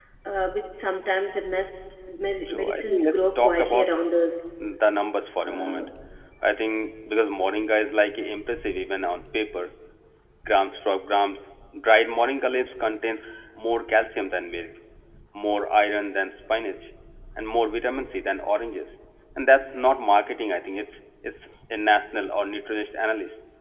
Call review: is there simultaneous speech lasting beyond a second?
Yes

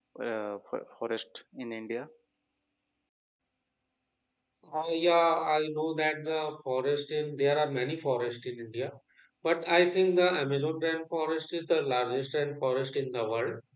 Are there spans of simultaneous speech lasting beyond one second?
No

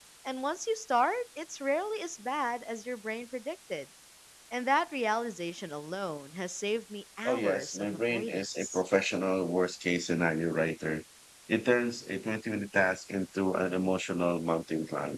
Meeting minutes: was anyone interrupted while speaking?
Yes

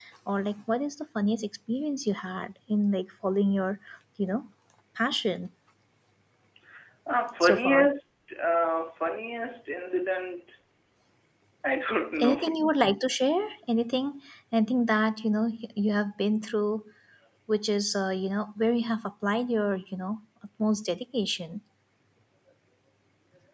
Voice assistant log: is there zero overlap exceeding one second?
Yes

